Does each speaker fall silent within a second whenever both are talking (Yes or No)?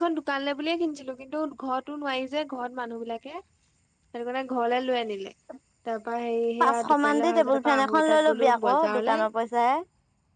No